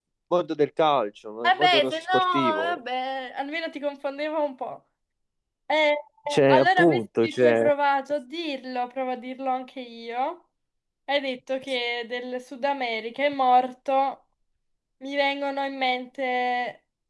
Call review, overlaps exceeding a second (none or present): present